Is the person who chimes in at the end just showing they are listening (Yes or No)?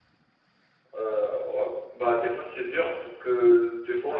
Yes